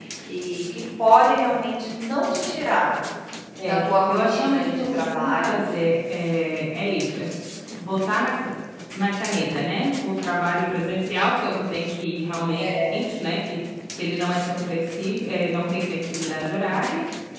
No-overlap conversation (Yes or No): No